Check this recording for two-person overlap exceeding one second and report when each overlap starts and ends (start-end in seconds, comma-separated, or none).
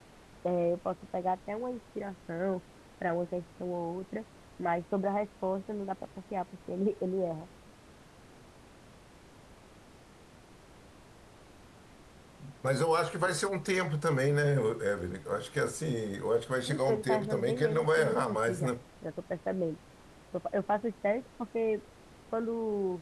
16.7-18.7